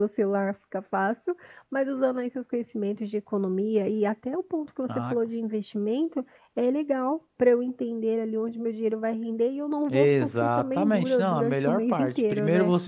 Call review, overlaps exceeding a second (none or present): present